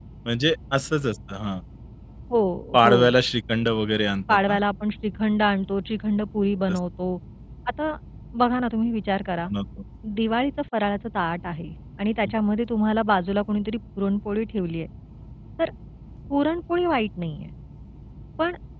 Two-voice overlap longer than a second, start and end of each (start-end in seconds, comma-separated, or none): none